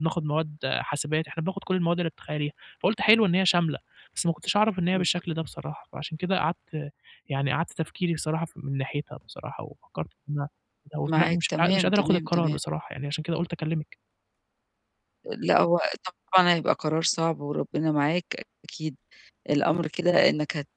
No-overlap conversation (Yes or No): No